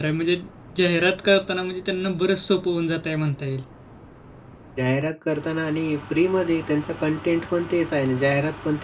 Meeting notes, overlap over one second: none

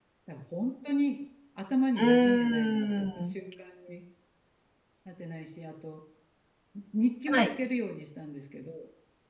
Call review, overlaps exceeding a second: present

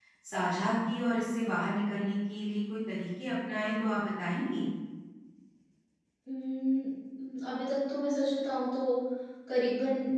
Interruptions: none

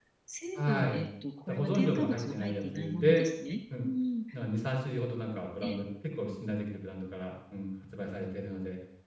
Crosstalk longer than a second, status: present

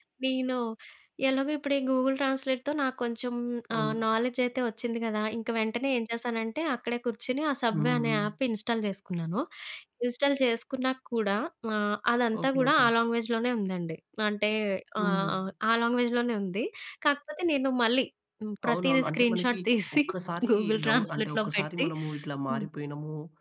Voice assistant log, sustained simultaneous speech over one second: present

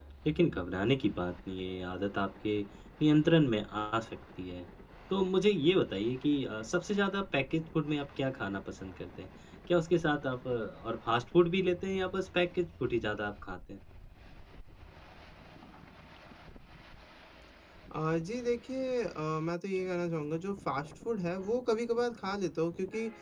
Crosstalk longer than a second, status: none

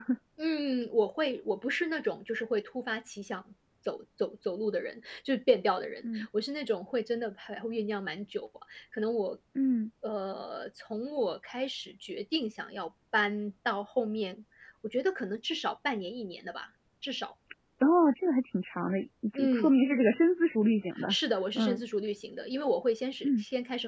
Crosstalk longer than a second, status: none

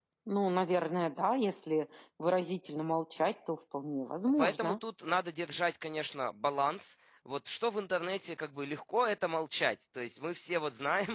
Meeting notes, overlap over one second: none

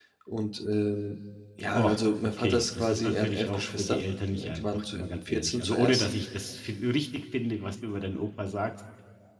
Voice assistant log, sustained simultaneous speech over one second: present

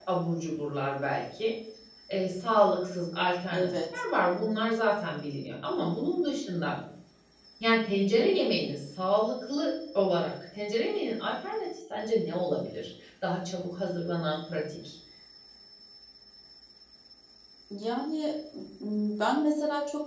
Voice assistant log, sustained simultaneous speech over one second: none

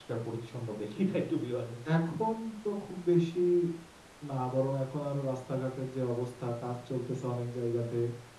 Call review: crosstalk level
none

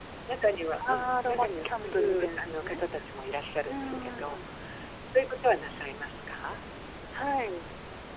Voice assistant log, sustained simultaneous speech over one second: present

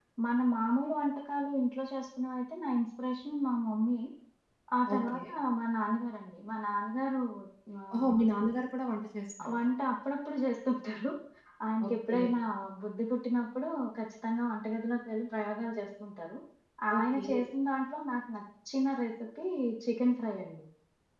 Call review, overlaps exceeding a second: none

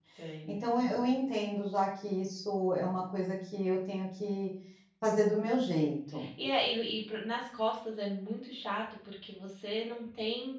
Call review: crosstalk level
none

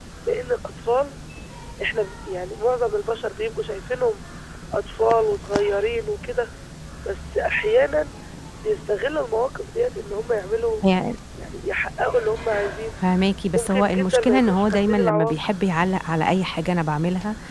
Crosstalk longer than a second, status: present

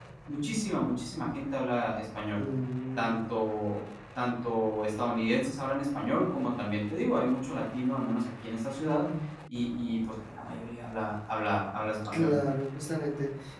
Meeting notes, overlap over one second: none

